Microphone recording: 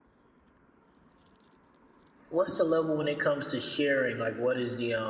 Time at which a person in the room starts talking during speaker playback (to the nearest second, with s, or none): 2 s